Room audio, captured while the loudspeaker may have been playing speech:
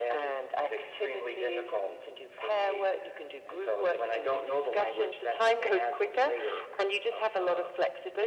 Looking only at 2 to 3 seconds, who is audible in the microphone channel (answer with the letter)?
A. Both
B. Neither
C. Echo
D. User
C